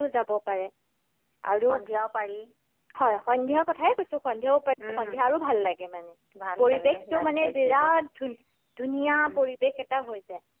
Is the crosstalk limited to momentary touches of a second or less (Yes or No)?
No